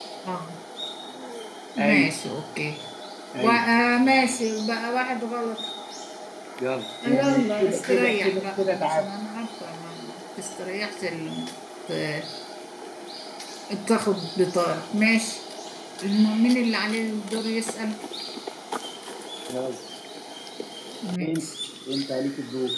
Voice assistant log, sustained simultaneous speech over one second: present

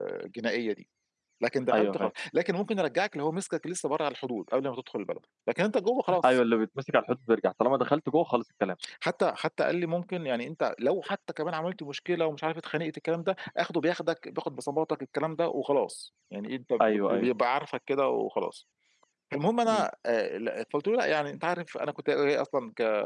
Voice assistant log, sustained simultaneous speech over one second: none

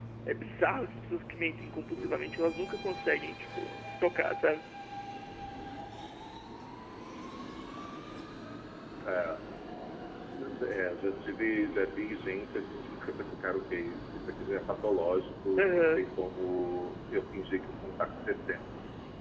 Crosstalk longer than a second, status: none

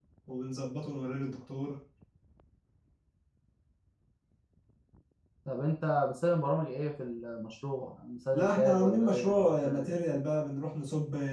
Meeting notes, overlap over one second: present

